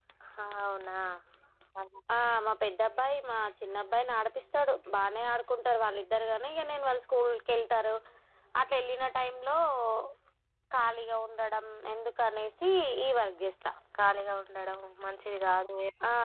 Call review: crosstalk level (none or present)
none